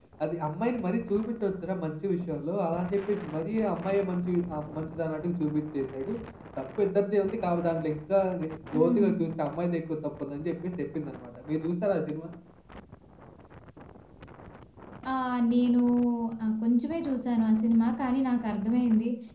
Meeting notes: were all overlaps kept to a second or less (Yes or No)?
Yes